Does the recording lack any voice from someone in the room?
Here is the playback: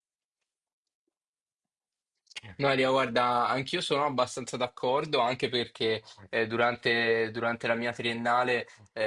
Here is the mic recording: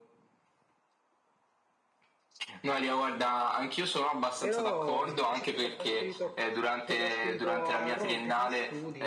No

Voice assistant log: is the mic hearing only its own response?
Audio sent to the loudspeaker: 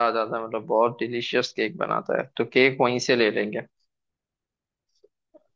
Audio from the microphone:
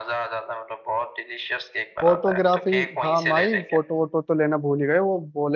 No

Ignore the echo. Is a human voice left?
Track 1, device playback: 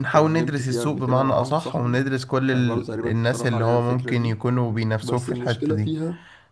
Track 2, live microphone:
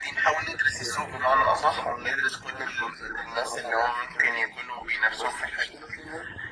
No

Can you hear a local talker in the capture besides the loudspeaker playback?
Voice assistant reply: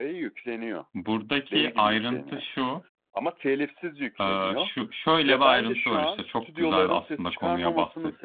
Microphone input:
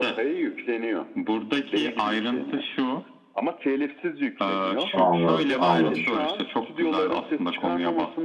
Yes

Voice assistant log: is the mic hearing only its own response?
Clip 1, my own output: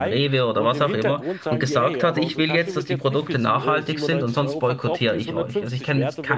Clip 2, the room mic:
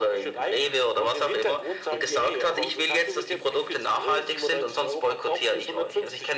Yes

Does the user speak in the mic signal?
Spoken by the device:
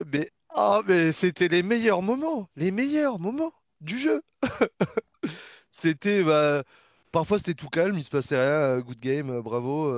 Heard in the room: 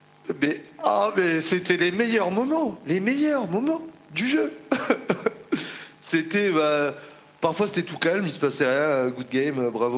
No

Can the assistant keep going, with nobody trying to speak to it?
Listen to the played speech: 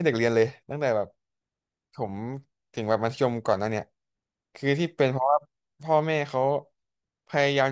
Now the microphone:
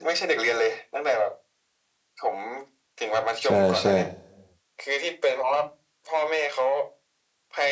No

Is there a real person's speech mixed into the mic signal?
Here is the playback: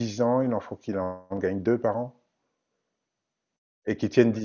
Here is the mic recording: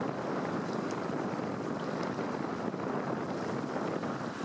No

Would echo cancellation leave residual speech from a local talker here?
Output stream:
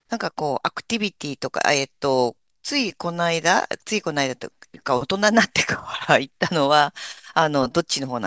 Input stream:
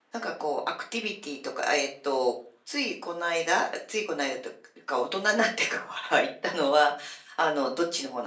No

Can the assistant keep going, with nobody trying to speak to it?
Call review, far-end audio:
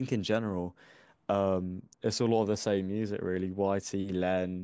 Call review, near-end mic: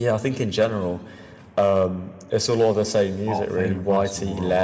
No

